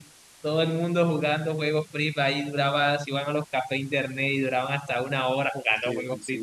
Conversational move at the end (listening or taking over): taking over